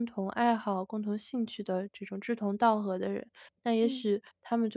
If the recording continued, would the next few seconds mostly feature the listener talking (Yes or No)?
No